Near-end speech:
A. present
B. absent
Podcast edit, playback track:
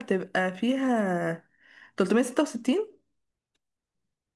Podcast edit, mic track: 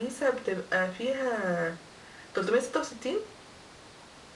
B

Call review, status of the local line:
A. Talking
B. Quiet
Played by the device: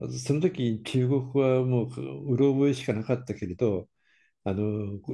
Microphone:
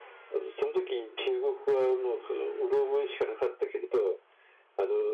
B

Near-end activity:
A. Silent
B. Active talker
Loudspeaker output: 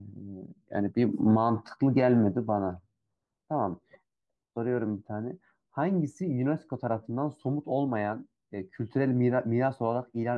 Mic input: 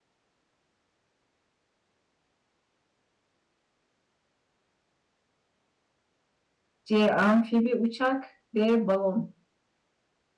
B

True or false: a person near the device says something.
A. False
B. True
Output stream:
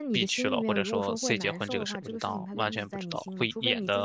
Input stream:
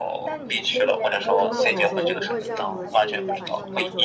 B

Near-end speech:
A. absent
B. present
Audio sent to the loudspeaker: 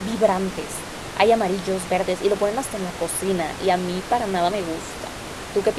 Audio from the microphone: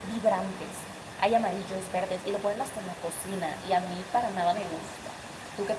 A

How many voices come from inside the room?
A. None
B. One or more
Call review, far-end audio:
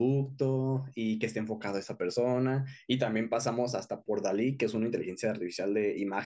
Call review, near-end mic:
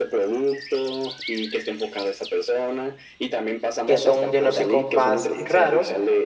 B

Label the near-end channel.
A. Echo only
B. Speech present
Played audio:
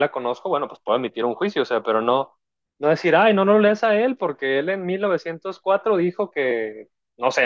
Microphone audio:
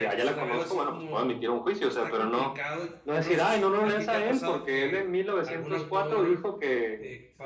B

